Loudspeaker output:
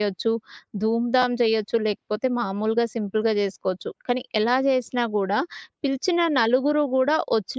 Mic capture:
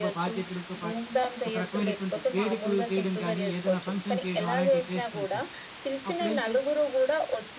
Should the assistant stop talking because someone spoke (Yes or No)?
Yes